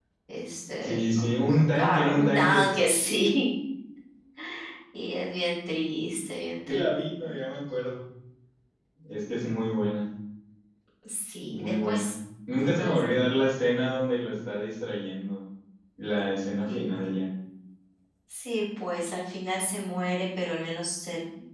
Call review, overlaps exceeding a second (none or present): present